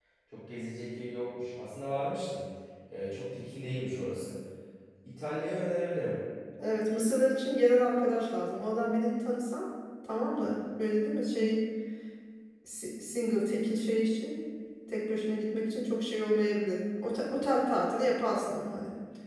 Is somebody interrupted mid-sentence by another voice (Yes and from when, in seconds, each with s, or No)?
No